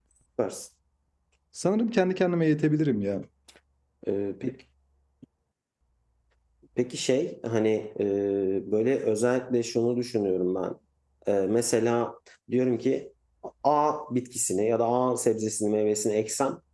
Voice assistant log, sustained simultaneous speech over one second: none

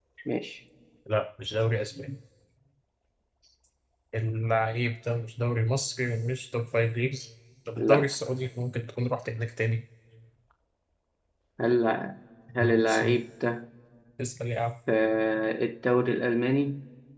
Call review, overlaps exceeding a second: none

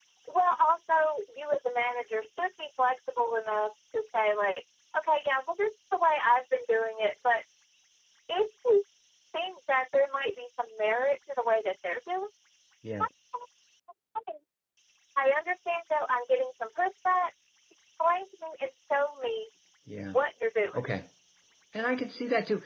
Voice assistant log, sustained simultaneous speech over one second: none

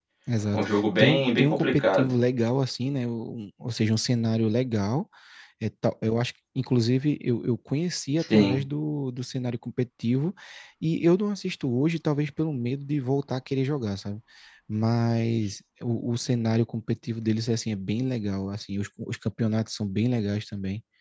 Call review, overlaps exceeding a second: present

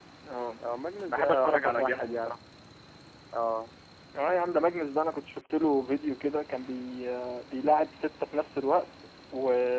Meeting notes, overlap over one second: present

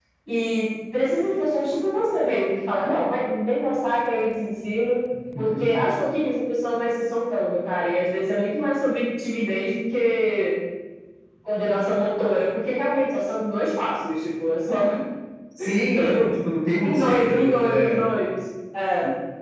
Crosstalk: present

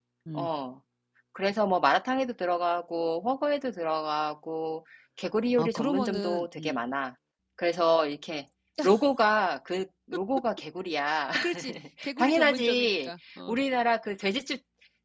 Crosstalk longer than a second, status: present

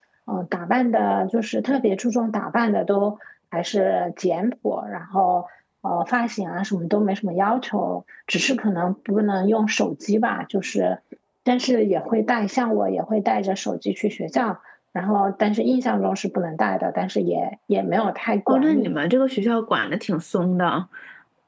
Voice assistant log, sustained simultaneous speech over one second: none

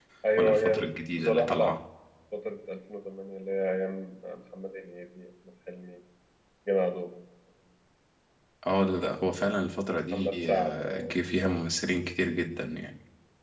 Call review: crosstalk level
present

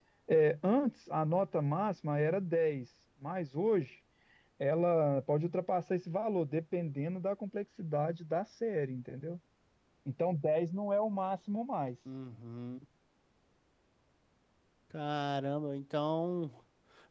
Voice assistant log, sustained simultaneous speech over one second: none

